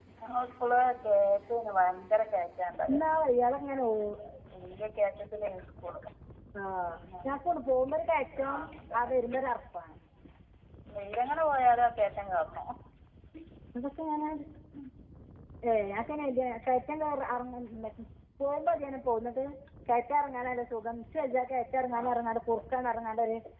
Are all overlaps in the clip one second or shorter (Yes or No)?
Yes